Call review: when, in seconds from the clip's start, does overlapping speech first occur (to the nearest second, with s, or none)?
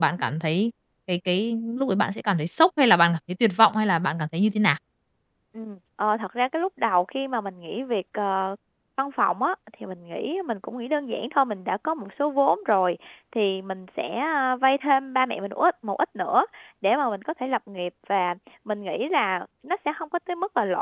none